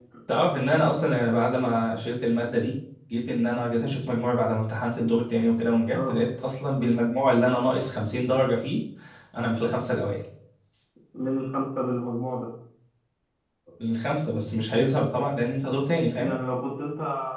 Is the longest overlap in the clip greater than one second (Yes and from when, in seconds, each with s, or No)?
No